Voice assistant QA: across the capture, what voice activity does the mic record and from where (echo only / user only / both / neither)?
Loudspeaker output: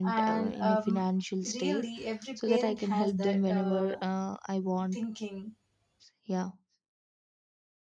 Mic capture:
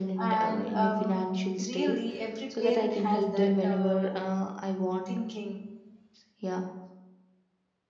echo only